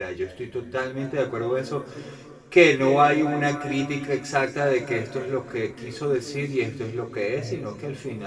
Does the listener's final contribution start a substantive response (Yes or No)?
No